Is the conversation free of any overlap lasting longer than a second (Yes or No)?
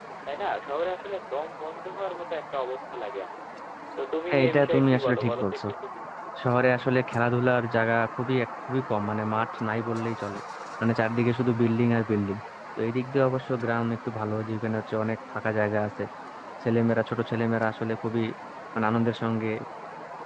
No